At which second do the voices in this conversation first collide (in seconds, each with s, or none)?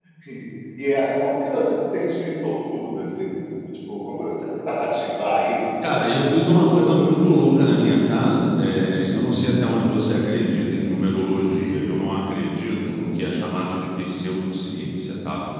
5.8 s